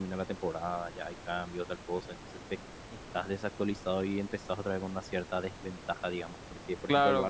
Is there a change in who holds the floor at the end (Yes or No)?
Yes